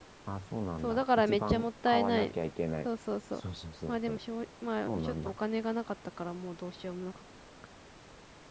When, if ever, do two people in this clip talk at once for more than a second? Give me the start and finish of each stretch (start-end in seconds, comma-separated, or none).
0.8-2.3